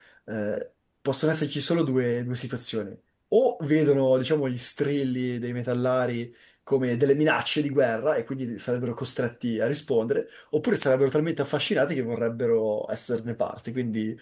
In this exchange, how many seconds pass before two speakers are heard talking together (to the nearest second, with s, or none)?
none